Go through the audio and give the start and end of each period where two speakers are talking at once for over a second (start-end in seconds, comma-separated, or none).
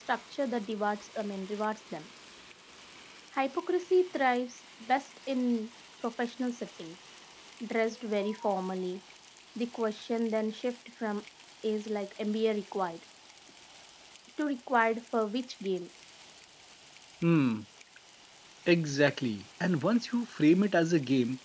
none